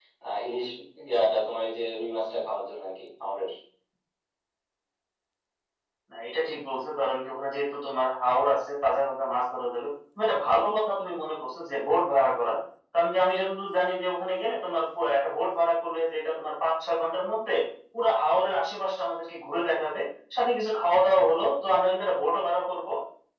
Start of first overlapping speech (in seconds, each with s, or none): none